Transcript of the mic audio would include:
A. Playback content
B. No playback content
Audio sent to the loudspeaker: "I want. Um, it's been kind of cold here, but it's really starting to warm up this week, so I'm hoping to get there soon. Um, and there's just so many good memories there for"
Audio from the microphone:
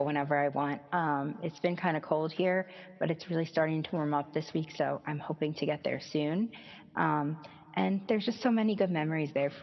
A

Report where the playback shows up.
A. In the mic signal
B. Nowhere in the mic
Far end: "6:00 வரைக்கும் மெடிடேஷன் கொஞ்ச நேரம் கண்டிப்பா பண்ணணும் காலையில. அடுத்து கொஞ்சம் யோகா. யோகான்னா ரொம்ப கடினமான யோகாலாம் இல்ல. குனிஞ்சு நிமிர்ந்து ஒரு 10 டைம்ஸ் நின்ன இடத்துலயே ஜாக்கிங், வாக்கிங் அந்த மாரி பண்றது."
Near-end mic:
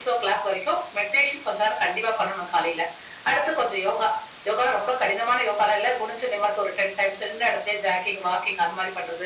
A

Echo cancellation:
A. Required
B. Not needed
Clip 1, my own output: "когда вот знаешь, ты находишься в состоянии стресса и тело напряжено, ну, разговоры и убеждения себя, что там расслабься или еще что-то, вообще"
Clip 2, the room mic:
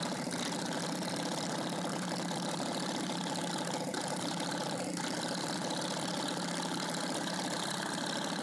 B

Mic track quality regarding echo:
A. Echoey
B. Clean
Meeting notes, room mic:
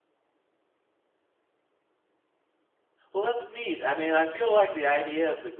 B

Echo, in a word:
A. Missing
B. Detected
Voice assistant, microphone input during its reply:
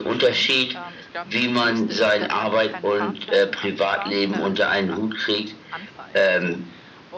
B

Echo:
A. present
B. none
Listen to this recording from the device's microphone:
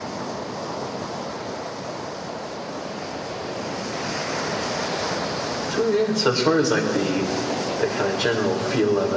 B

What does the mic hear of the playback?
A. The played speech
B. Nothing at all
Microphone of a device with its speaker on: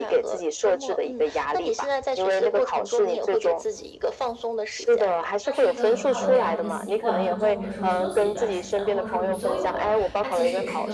A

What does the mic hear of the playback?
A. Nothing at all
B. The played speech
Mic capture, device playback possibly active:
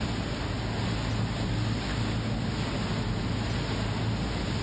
A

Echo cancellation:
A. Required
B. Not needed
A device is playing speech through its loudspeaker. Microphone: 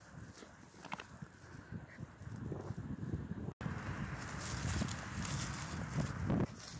B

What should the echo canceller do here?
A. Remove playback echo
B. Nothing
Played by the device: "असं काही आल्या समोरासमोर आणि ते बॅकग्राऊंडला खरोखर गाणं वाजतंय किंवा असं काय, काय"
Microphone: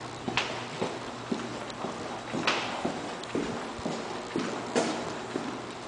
B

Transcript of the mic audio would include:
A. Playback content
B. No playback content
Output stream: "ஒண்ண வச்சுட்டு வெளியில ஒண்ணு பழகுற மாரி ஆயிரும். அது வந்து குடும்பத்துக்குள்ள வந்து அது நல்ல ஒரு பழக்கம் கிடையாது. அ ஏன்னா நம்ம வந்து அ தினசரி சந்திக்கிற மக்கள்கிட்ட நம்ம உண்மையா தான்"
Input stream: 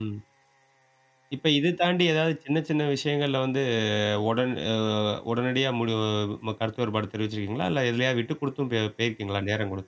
B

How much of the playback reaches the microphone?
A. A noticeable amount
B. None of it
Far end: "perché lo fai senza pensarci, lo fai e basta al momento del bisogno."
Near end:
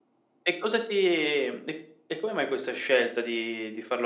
B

